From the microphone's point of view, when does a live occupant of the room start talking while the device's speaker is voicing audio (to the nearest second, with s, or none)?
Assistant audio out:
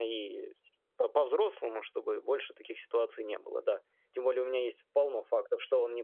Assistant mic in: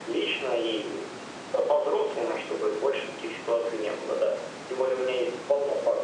none